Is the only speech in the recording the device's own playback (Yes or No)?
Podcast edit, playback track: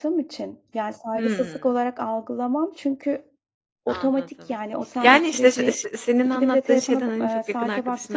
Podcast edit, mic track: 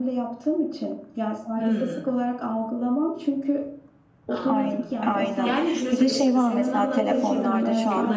No